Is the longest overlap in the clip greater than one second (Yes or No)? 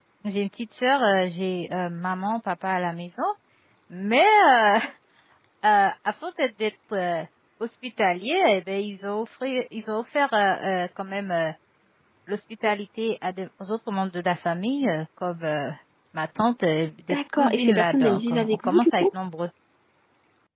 Yes